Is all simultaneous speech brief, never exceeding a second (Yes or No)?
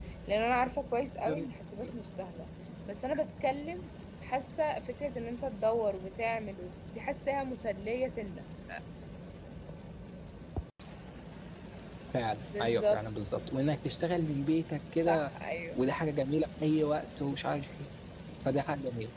Yes